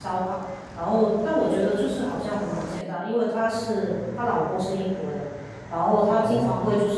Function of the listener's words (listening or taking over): listening